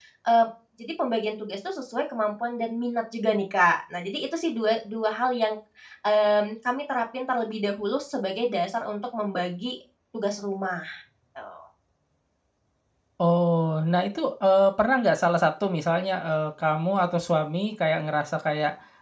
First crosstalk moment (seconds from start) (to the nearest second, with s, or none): none